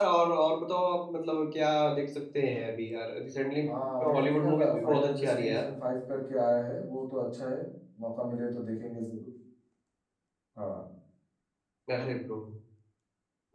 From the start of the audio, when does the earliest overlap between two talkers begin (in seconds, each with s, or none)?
4.1 s